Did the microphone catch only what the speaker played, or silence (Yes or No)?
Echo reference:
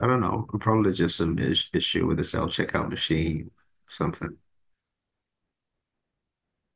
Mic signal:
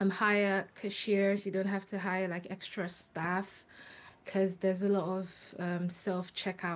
No